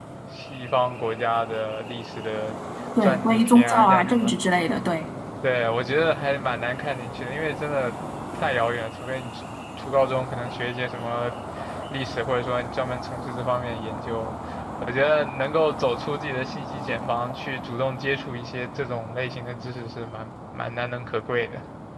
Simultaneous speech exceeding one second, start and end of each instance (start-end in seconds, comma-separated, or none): 3.0-4.3